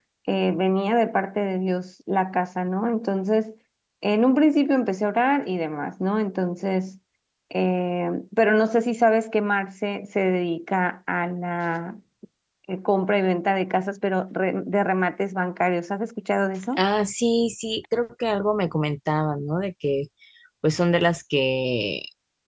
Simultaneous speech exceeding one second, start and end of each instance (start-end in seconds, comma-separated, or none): none